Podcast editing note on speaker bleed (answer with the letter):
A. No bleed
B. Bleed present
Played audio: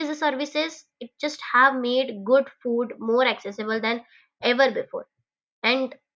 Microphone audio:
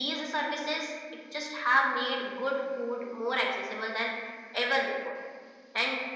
B